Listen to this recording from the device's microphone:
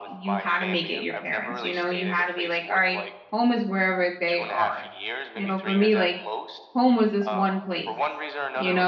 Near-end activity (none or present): present